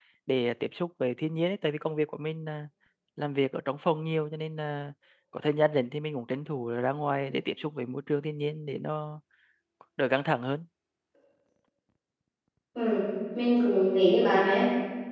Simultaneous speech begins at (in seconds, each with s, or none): none